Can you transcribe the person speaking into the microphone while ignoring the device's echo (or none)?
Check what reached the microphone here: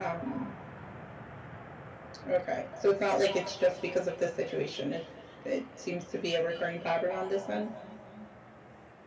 none